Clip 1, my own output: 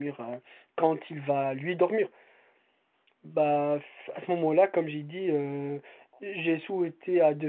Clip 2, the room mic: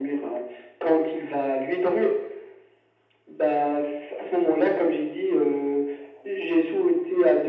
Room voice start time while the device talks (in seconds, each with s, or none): none